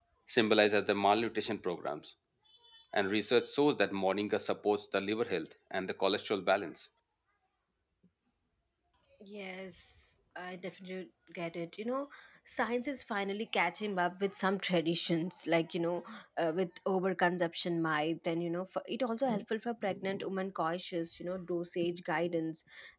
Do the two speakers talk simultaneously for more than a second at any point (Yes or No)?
No